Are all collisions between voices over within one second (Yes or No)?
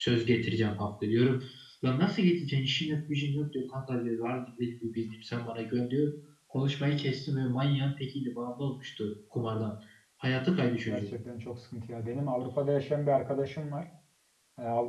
Yes